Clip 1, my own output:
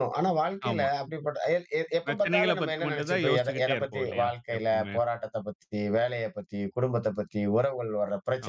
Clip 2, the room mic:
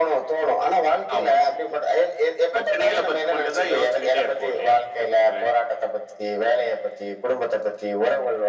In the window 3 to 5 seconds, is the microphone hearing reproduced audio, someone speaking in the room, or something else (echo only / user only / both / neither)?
echo only